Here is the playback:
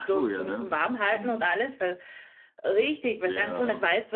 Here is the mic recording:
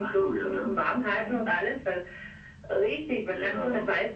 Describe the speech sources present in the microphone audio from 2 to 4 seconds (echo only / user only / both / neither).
echo only